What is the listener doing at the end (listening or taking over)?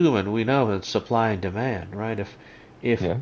listening